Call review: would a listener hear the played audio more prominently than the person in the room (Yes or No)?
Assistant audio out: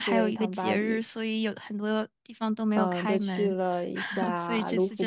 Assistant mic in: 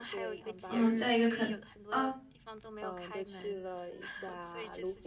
No